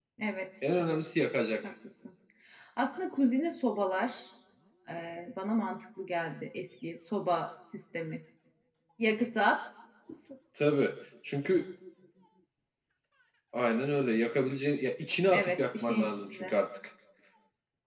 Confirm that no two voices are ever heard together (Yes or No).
No